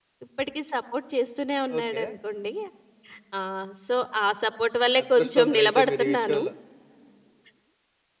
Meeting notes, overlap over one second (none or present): present